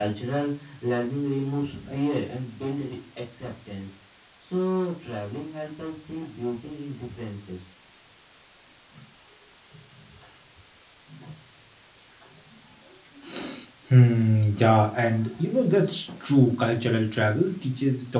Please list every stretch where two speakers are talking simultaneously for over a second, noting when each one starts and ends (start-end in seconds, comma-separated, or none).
none